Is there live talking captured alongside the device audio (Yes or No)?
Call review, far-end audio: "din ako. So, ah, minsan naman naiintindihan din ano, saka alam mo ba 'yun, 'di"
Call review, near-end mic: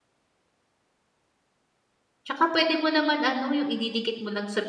Yes